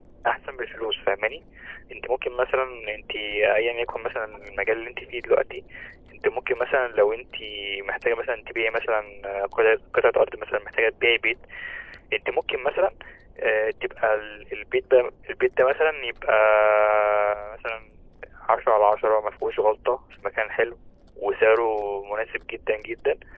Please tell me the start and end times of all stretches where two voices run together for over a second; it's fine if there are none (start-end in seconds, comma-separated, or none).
none